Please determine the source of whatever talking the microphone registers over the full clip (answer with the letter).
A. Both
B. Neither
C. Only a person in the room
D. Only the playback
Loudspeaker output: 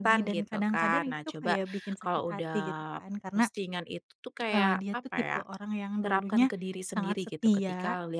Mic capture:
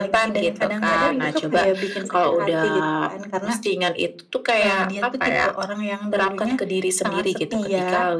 A